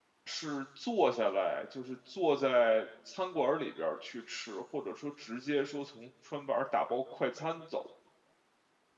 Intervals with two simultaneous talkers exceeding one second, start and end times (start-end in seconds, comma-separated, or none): none